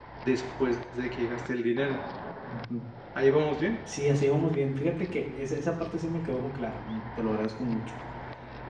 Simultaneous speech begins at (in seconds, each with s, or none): none